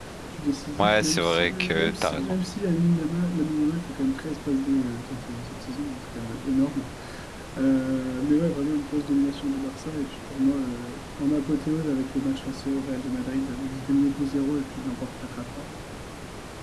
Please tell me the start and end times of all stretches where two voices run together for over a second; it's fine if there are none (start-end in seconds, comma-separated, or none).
0.8-2.4